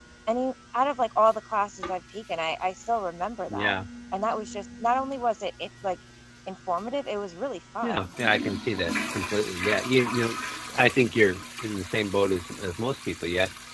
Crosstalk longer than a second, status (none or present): none